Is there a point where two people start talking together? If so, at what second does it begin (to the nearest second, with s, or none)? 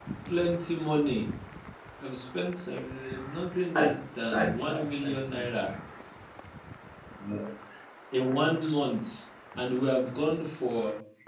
4 s